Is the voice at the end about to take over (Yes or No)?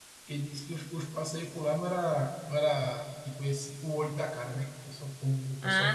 Yes